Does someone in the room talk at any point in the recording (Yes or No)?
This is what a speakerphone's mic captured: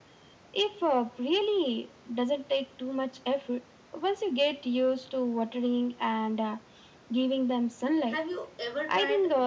Yes